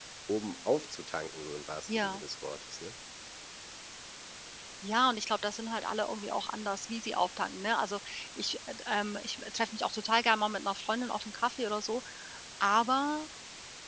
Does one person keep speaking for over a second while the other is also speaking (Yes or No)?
No